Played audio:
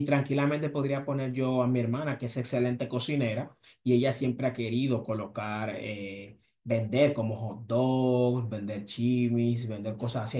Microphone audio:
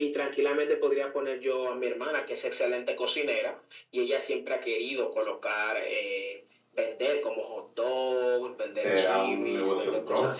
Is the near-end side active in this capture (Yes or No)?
Yes